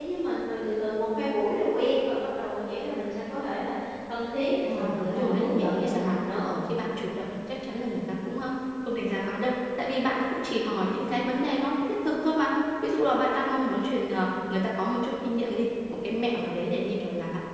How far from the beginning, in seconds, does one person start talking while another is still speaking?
4.7 s

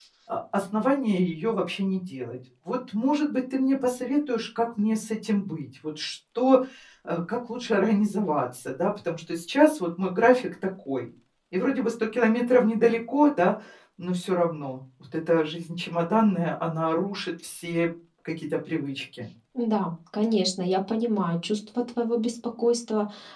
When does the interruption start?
none

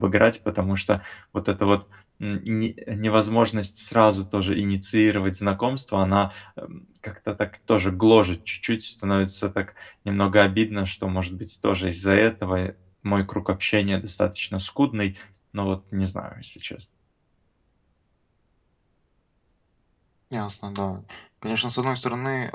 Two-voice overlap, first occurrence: none

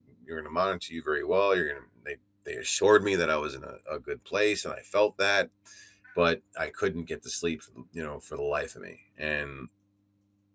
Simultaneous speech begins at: none

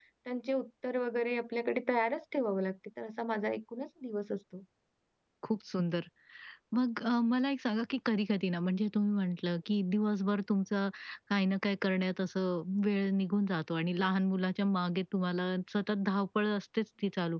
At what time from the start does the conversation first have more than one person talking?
none

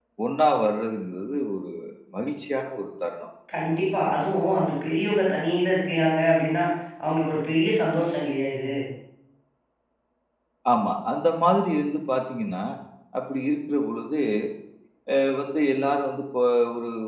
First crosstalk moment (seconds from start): none

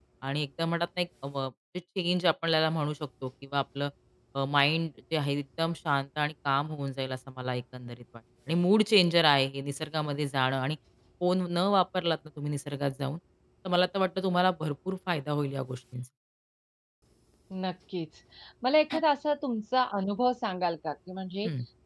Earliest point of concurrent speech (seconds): none

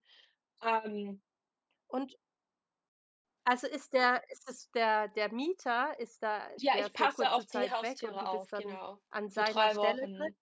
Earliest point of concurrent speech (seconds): 6.6 s

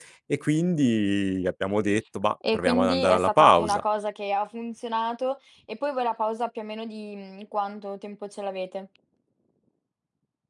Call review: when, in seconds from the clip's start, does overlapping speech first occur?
2.4 s

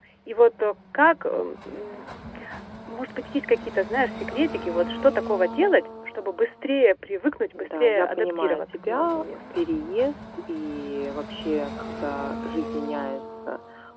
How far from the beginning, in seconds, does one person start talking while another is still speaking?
7.5 s

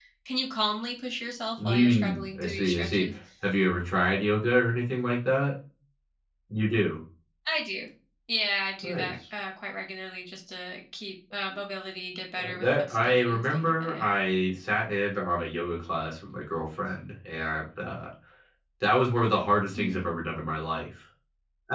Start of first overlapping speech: 1.6 s

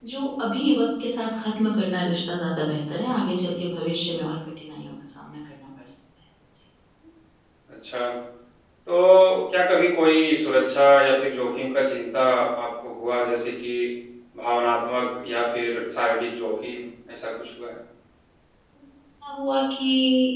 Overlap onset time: none

